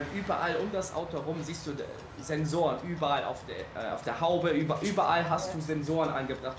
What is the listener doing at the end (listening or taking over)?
listening